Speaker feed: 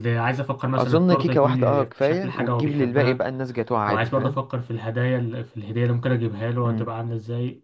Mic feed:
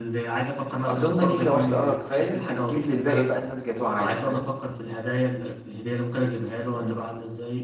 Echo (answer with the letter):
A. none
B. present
B